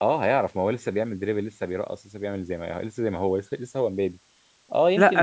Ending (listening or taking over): listening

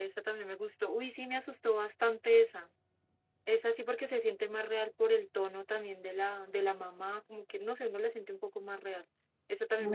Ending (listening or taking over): taking over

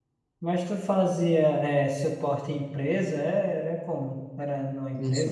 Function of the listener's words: taking over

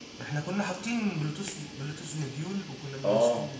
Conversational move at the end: taking over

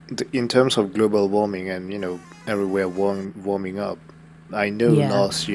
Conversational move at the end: listening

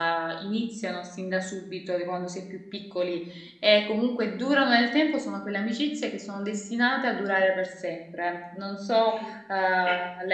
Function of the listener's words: listening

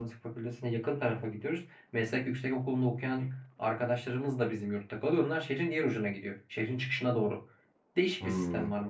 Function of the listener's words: listening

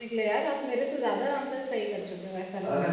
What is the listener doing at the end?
taking over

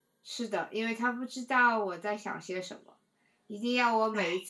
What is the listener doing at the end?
listening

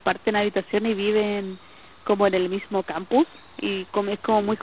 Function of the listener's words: listening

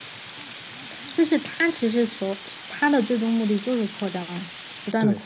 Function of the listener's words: taking over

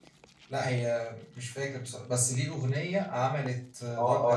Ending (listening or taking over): taking over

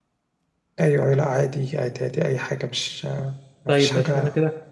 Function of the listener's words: taking over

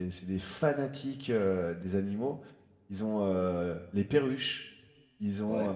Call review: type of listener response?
listening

